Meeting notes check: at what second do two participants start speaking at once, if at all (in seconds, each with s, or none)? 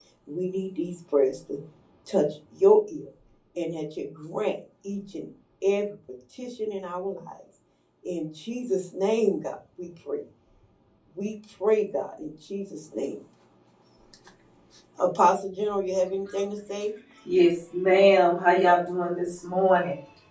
none